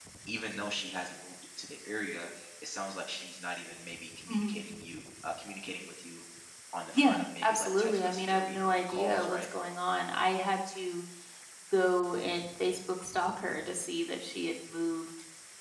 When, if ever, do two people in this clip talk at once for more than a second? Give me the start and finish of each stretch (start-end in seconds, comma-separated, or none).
6.9-9.4